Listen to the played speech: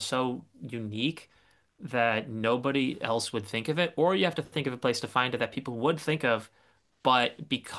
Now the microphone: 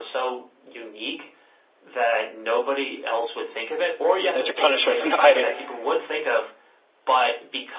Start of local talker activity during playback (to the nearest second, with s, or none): 4 s